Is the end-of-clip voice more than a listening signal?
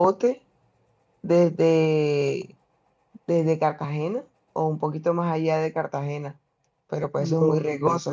Yes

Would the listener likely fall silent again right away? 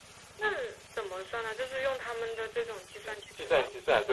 No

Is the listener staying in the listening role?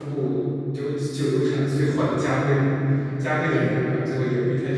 Yes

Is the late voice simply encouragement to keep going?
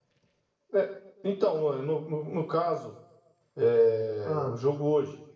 Yes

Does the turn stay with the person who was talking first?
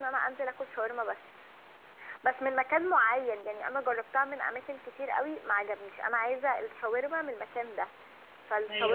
Yes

